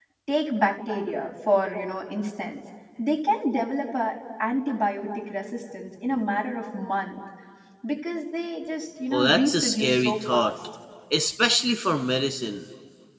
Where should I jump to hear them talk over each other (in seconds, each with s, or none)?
9.1 s